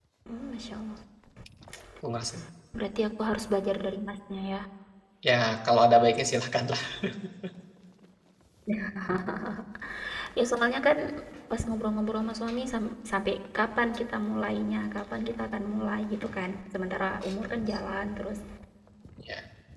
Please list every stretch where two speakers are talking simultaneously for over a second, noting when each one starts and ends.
none

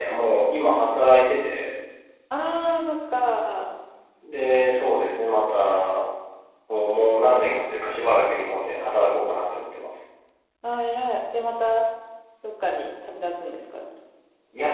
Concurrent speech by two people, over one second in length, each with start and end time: none

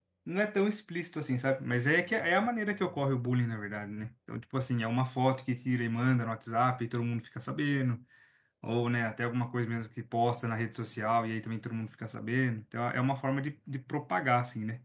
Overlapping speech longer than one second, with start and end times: none

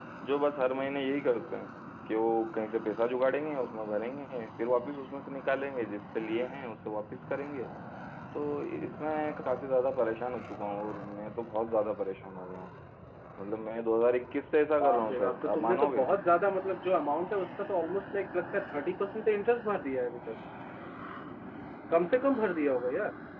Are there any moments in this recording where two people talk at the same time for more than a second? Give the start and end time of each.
14.8-16.0

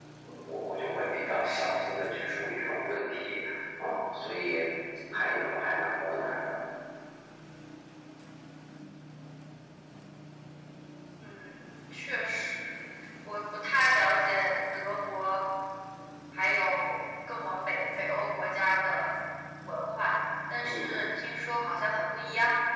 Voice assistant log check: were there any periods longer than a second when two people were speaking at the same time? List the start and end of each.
none

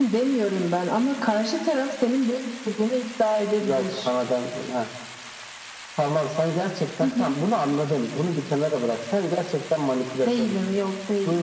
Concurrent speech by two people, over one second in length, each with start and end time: none

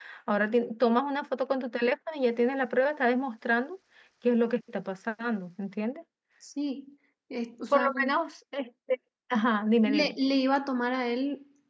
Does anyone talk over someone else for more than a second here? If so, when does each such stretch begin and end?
none

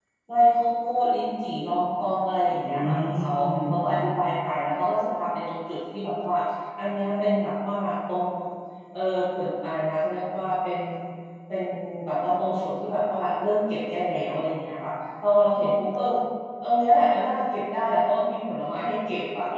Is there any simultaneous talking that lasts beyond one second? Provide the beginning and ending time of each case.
2.5-3.9

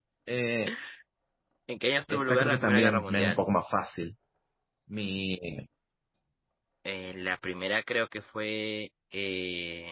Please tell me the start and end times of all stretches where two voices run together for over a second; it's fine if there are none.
2.1-3.4

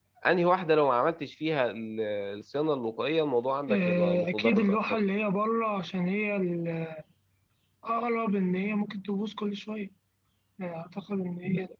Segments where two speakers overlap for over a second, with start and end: 3.7-5.0

